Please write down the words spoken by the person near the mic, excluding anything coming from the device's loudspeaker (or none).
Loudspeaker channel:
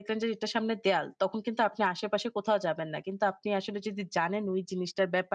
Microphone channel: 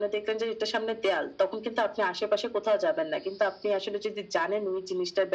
none